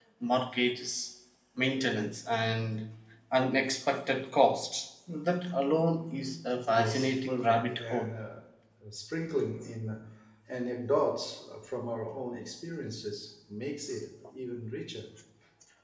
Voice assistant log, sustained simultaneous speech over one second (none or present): present